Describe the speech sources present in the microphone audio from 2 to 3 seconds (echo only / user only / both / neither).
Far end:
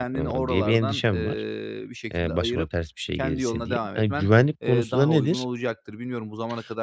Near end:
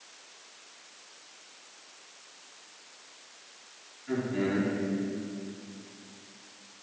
neither